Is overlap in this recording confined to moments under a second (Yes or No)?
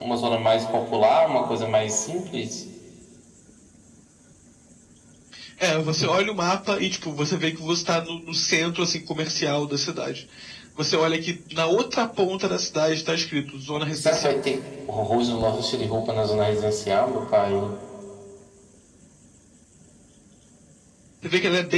Yes